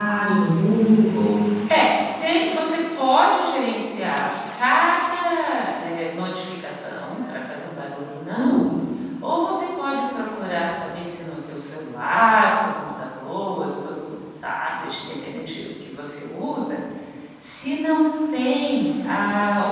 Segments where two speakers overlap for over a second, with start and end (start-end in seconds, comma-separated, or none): none